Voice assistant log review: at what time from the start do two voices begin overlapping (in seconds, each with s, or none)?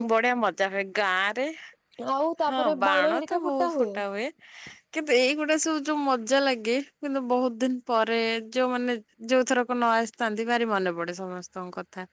2.5 s